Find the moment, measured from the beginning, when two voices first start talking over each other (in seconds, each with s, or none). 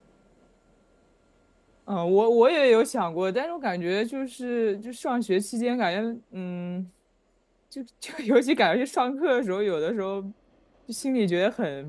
none